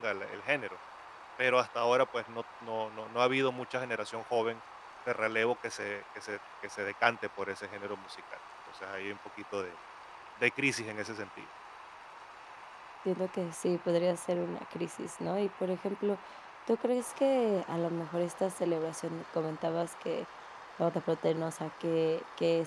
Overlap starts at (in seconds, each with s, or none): none